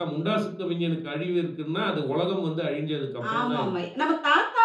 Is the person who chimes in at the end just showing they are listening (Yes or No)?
No